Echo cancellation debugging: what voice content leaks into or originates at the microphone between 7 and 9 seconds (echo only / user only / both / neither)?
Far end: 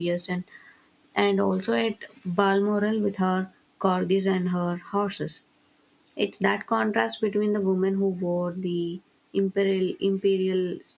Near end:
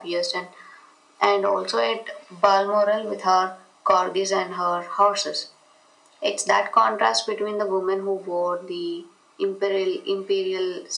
echo only